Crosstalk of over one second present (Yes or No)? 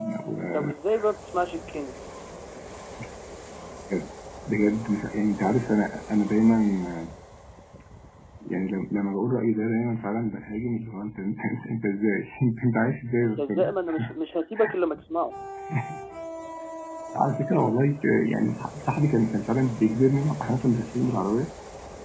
No